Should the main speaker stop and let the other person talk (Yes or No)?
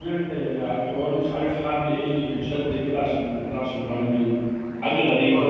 Yes